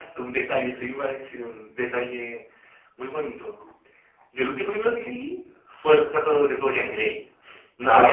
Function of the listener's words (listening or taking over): listening